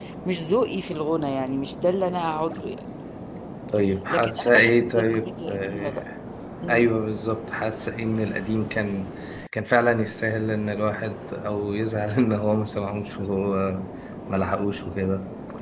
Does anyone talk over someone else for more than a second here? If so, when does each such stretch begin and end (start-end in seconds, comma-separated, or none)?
4.1-6.0